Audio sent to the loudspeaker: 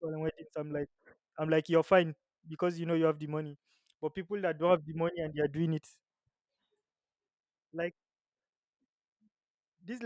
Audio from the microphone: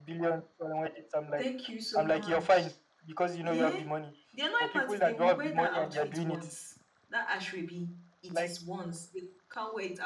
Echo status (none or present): present